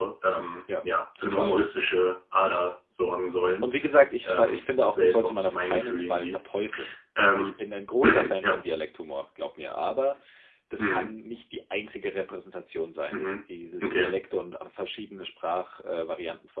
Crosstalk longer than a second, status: present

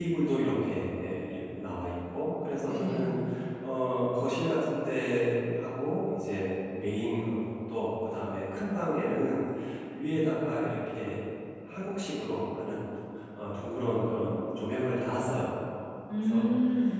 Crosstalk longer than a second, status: none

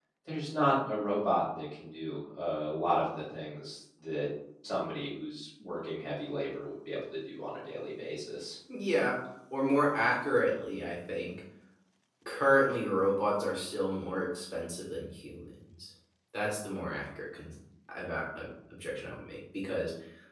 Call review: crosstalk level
none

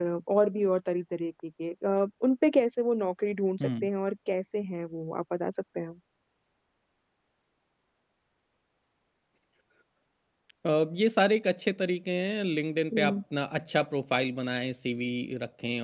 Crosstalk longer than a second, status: none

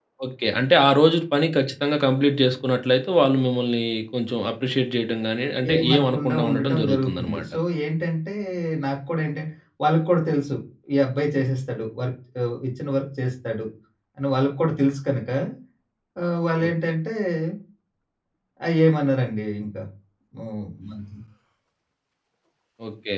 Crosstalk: present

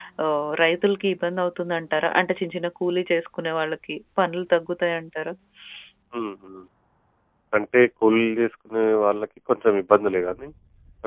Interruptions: none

